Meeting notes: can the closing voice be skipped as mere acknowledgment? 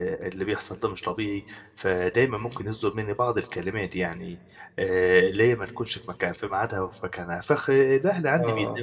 Yes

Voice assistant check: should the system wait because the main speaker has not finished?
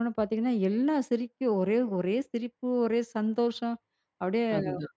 Yes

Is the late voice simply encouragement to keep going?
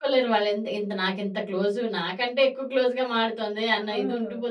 No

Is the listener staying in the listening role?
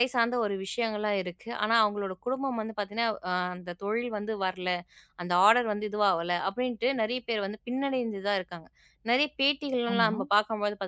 Yes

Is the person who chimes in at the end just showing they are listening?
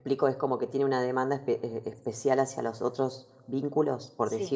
No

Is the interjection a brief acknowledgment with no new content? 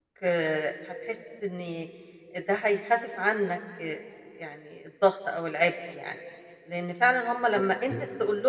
Yes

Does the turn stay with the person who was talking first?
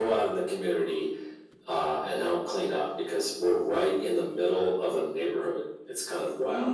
No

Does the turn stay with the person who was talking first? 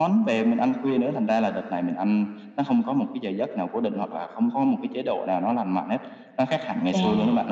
No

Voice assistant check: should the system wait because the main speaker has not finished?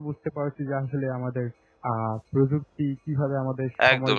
No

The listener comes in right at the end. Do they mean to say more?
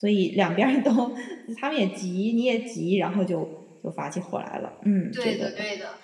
Yes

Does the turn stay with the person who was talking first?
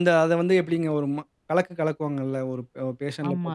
No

